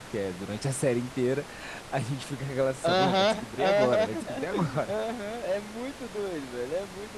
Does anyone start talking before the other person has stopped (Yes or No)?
Yes